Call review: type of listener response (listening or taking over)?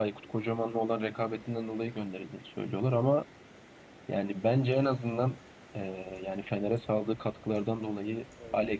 listening